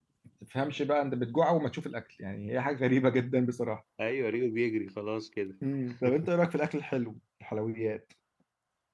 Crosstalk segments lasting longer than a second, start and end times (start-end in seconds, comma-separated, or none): none